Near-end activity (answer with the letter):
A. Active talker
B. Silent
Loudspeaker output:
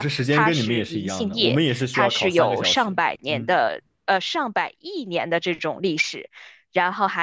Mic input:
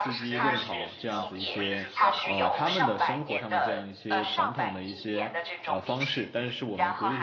A